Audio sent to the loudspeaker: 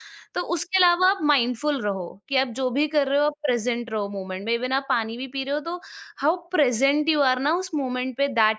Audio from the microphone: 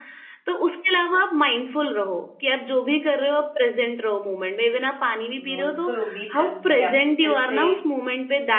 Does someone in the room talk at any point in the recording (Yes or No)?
Yes